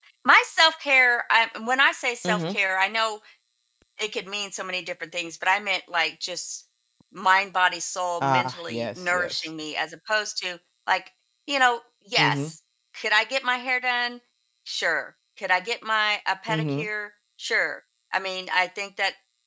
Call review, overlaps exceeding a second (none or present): present